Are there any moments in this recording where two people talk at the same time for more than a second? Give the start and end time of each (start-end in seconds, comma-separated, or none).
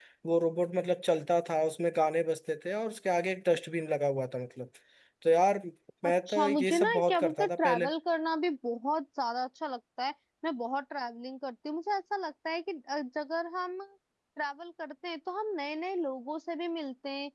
6.0-7.9